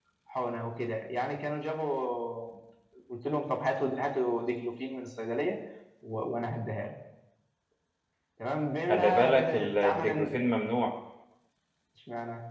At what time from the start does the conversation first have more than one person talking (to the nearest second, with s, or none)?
9 s